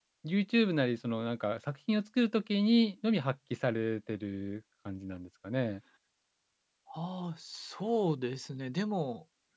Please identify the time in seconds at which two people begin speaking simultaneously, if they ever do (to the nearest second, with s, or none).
none